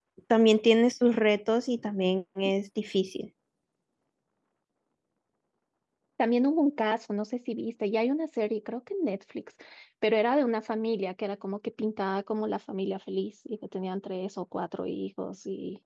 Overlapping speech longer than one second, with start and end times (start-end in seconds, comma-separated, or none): none